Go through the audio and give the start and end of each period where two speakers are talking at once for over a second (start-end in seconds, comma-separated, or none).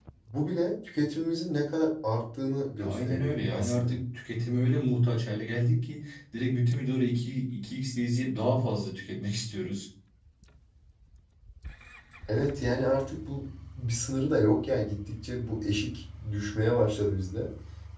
2.8-4.0